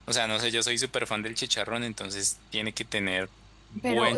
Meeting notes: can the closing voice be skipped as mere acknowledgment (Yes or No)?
No